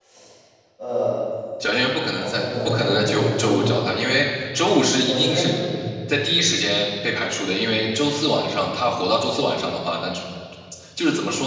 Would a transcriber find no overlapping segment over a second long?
No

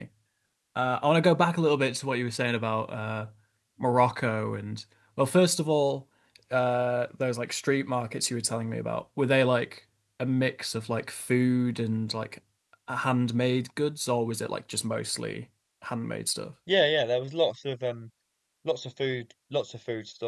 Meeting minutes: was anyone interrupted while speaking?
No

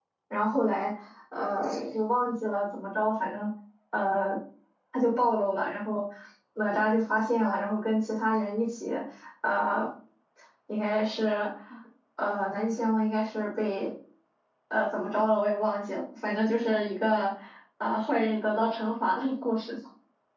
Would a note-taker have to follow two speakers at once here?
No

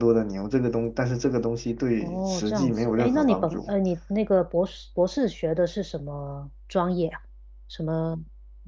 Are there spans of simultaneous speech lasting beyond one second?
Yes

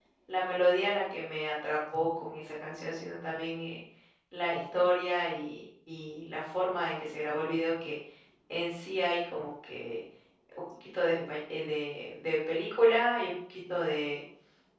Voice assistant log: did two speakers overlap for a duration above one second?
No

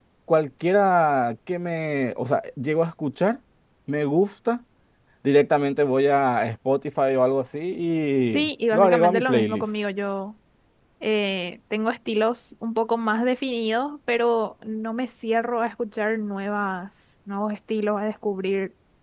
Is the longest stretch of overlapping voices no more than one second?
No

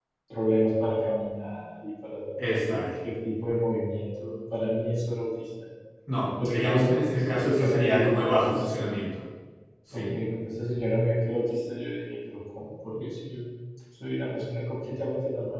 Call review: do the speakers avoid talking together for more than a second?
No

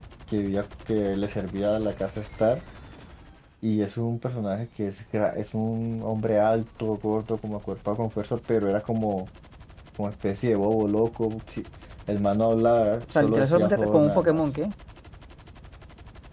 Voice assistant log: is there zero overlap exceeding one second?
No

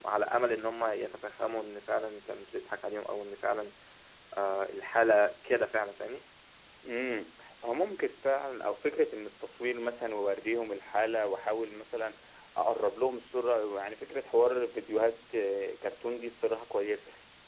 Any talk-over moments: No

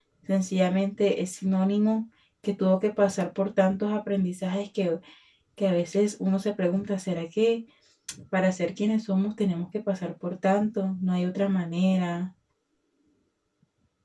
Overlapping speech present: No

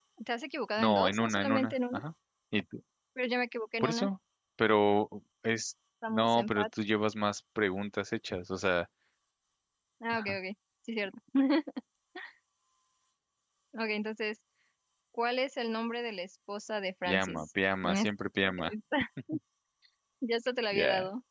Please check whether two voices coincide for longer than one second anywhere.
Yes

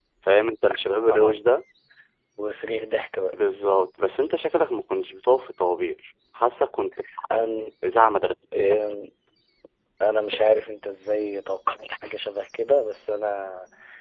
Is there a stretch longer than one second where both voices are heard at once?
No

